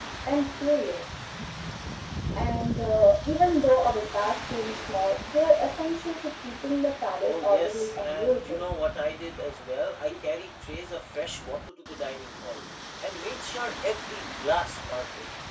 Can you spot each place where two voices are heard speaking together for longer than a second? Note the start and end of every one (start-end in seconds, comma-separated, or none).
7.2-8.6